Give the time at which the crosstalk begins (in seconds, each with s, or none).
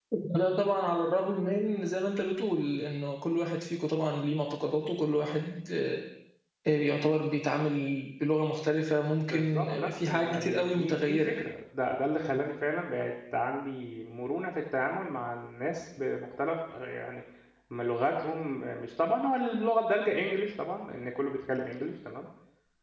9.3 s